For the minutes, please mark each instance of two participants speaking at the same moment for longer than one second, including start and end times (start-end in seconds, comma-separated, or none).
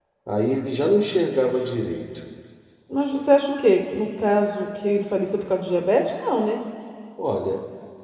none